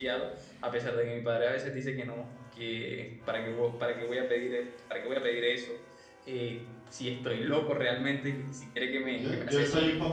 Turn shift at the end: Yes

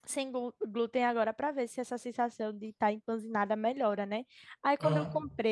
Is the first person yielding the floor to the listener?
No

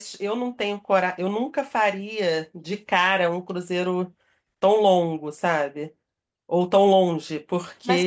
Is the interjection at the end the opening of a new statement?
Yes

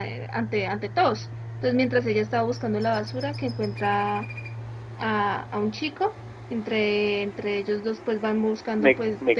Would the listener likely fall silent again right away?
No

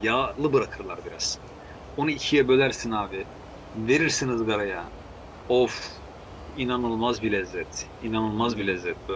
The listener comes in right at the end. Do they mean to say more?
No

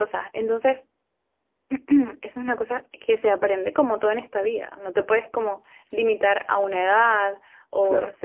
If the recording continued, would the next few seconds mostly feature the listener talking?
No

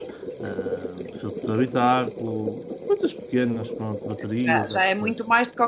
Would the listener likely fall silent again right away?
No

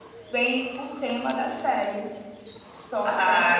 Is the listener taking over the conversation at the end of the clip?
Yes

